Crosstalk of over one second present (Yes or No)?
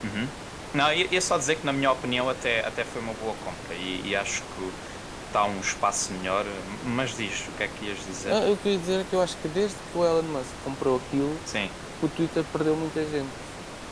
No